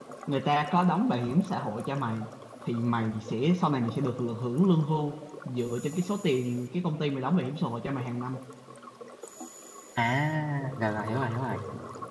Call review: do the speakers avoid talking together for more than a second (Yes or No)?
Yes